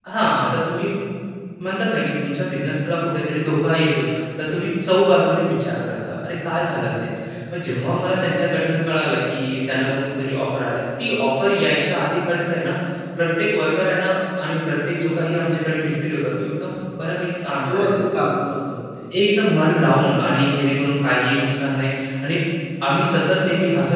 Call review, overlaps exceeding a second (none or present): none